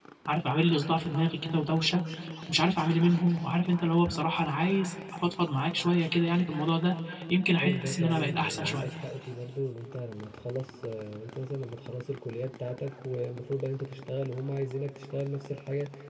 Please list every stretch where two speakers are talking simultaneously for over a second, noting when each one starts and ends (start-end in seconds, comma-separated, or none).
7.6-8.9